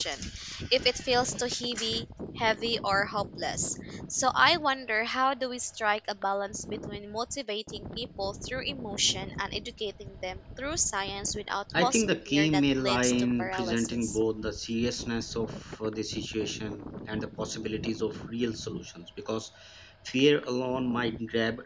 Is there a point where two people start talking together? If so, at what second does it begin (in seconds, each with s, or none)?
11.7 s